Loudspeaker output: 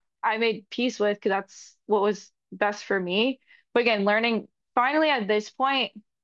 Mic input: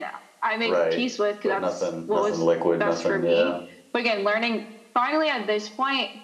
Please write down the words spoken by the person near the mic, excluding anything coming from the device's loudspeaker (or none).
right but nothing nothing liquid nothing yeah